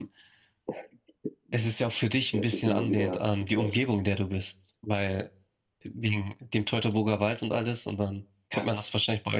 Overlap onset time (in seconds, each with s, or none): 2.3 s